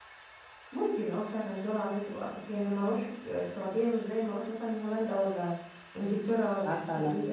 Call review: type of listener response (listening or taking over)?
taking over